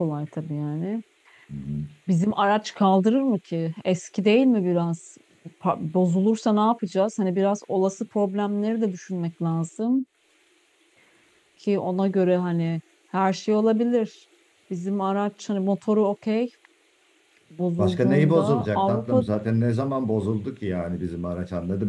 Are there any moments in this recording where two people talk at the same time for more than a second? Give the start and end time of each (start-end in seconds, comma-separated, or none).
17.8-19.2